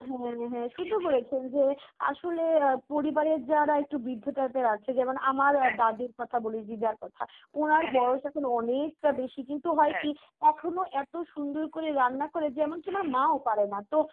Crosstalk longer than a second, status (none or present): none